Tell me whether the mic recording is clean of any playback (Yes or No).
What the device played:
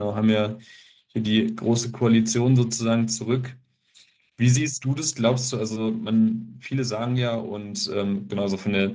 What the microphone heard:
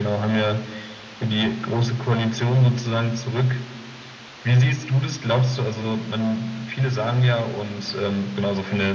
No